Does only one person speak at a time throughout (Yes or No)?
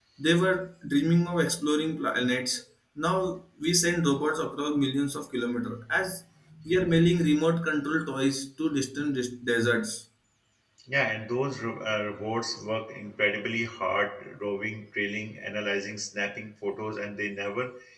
Yes